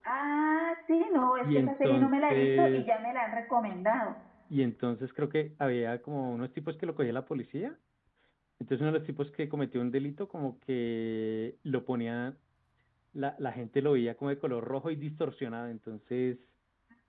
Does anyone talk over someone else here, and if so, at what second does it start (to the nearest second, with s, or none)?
1 s